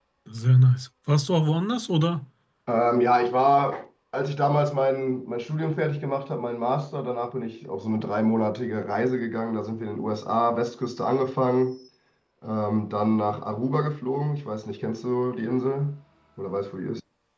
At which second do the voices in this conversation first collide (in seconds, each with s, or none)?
none